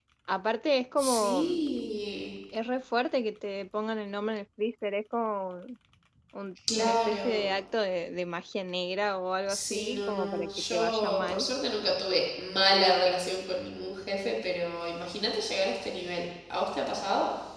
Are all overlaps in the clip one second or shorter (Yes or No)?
No